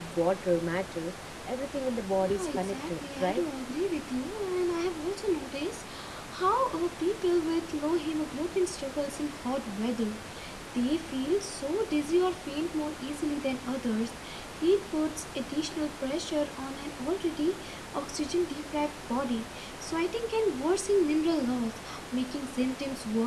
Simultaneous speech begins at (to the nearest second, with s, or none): 2 s